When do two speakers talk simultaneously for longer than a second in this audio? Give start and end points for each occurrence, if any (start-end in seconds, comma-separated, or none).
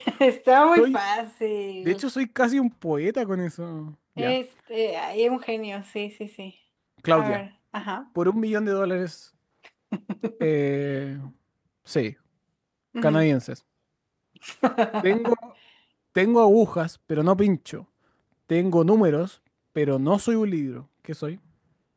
none